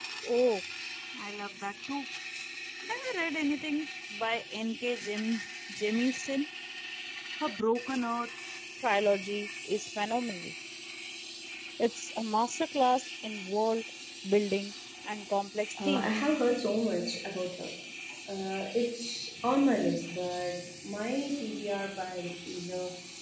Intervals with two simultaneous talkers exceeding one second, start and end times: none

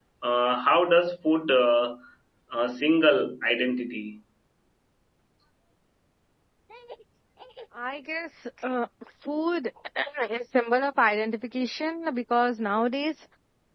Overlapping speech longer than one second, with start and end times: none

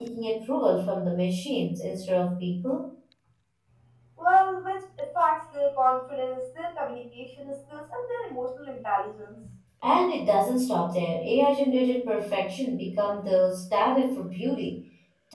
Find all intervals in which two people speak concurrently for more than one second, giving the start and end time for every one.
none

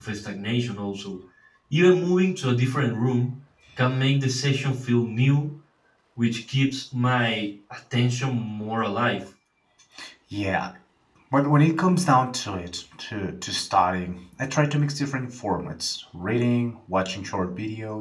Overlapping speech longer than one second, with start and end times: none

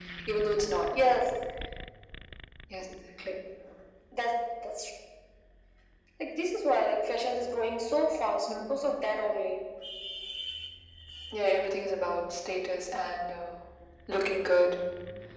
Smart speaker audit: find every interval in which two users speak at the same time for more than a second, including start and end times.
none

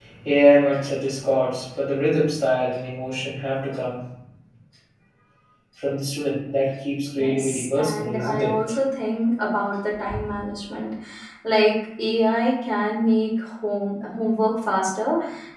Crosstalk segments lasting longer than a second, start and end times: 7.2-8.5

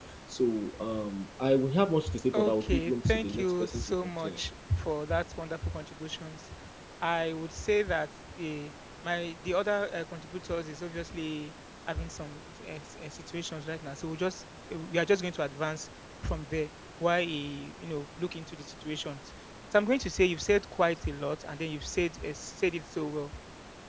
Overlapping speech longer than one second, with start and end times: 2.3-4.4

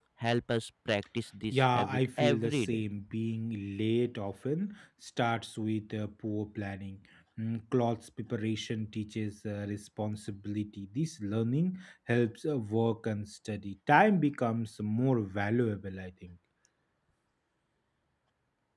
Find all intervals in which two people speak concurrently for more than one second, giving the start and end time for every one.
1.5-2.8

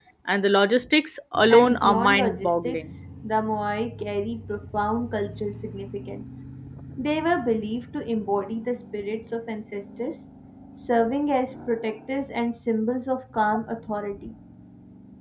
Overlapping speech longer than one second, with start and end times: 1.5-2.8

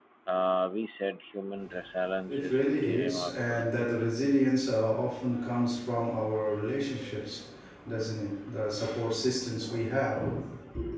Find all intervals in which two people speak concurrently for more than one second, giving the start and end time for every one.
2.3-3.6

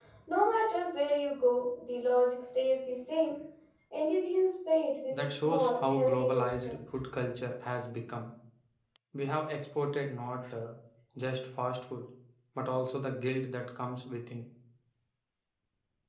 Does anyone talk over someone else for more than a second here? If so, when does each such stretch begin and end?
5.2-6.7

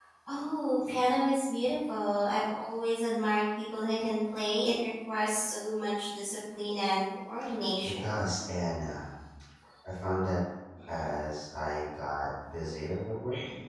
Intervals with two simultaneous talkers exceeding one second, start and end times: none

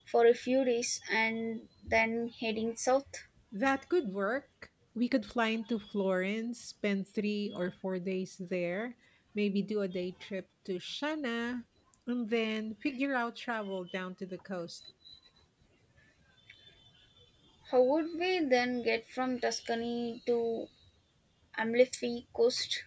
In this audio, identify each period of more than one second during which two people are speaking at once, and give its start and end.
none

